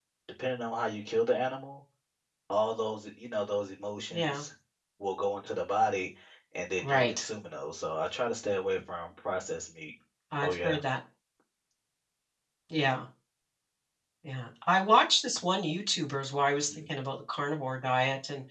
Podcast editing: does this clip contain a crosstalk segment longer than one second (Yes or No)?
No